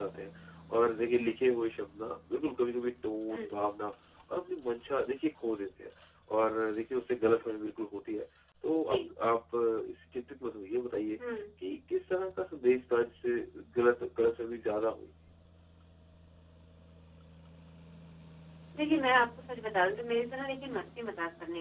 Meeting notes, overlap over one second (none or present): none